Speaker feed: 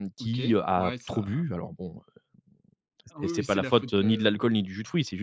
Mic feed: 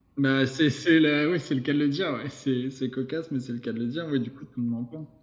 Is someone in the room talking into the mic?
Yes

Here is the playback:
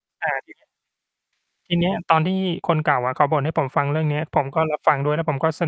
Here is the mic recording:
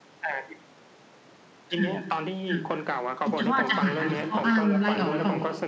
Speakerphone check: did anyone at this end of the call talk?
Yes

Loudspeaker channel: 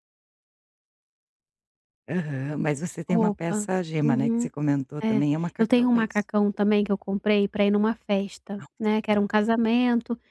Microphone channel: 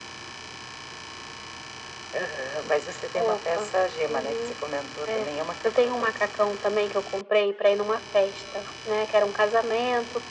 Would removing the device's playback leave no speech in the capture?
Yes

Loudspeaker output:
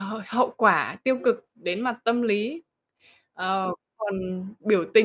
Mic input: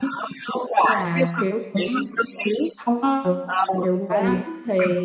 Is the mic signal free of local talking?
No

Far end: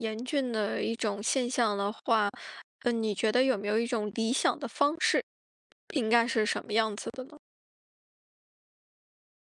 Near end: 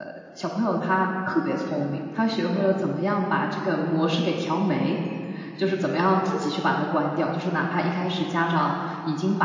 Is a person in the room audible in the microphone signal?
Yes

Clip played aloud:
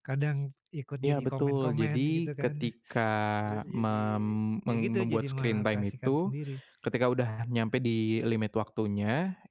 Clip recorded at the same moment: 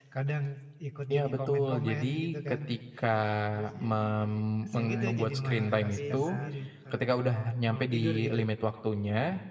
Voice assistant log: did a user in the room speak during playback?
Yes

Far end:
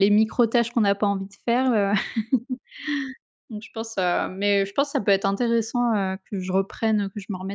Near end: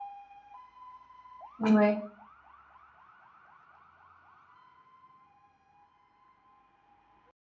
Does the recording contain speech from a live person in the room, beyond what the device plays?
Yes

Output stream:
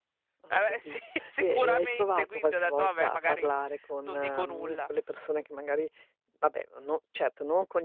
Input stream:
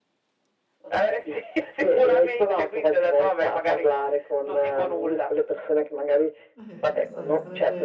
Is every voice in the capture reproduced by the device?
No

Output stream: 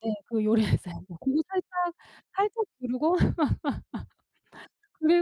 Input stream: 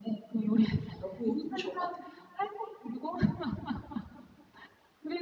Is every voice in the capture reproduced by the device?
No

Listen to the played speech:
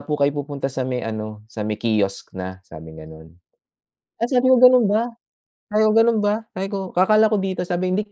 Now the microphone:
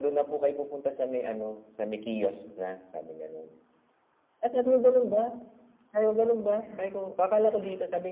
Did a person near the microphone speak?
Yes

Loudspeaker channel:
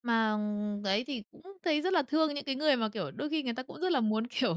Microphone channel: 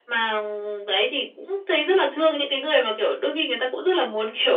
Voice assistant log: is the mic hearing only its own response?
Yes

